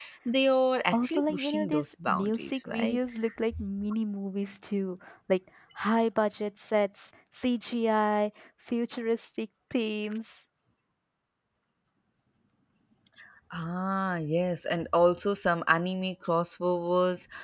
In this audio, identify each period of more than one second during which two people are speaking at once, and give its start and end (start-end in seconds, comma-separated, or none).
0.9-3.0